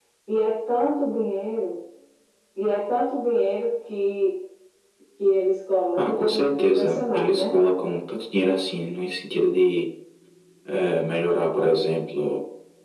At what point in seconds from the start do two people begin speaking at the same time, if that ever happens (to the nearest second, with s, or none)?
6 s